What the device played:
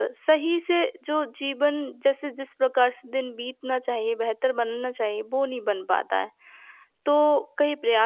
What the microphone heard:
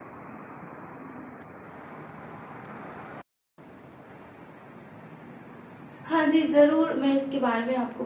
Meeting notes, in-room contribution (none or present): present